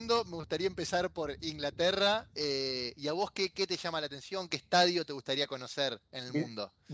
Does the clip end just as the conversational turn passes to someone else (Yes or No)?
Yes